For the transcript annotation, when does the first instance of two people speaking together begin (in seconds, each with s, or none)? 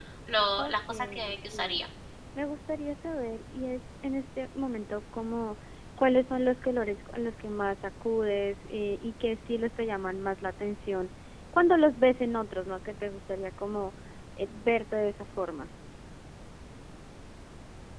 0.6 s